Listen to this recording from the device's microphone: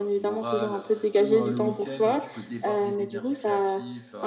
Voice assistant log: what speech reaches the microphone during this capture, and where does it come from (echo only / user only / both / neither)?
both